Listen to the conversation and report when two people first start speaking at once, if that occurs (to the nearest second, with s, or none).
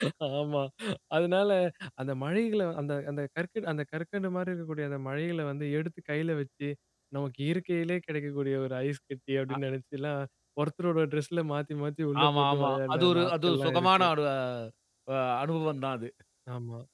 12 s